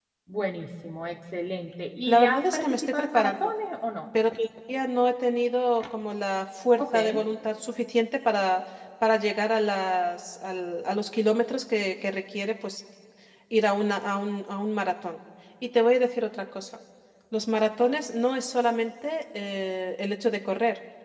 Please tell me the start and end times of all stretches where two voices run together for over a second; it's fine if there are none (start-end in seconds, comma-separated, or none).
2.1-3.5